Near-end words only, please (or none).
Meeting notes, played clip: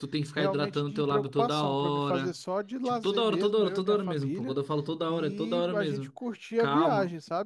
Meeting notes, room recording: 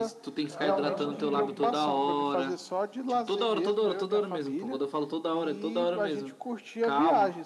Caramba, que.